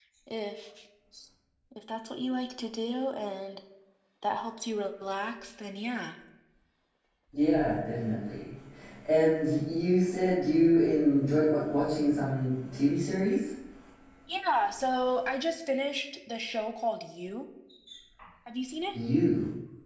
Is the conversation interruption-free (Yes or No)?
Yes